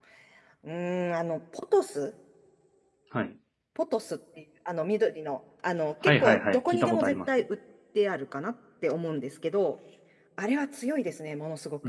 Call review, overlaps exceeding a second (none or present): present